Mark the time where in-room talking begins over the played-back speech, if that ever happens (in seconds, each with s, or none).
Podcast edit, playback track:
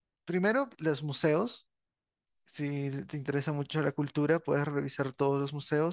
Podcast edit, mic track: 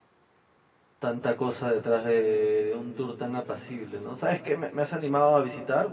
1.0 s